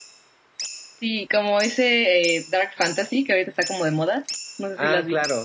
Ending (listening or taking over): taking over